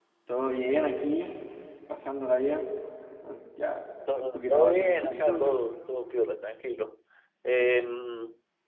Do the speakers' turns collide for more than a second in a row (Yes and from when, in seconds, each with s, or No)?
Yes, from 4.1 s